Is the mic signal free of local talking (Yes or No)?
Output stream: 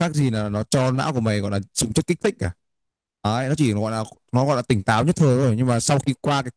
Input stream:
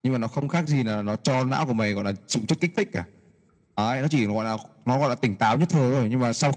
Yes